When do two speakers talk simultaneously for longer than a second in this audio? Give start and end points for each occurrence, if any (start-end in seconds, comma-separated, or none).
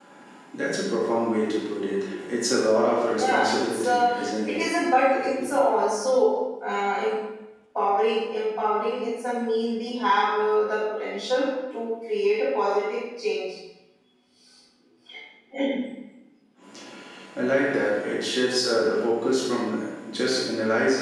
3.2-4.6